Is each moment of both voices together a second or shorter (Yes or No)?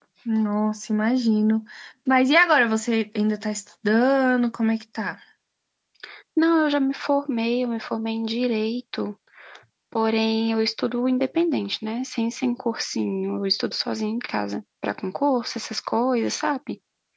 Yes